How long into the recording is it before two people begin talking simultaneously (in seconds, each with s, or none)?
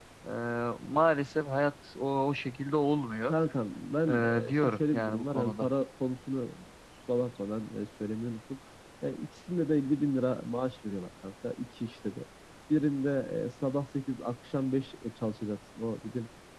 4.1 s